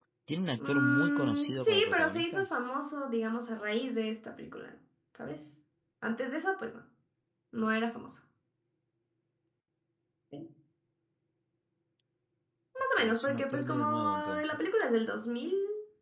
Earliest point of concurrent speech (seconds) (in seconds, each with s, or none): 0.6 s